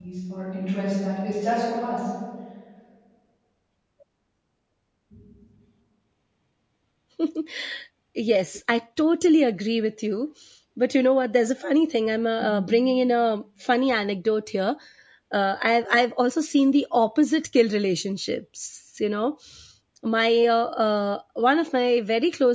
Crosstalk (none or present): none